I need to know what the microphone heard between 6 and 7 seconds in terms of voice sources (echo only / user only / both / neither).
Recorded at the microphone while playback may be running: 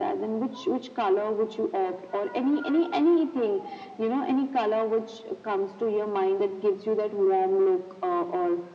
echo only